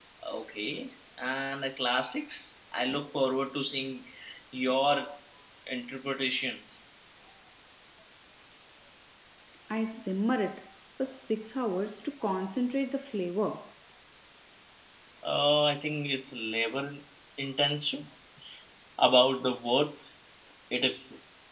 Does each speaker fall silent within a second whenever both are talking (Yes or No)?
Yes